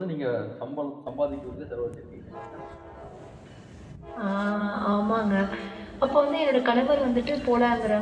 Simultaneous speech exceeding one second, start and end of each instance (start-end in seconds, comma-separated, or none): none